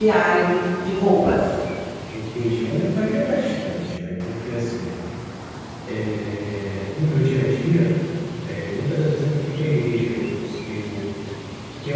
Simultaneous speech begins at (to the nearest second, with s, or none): none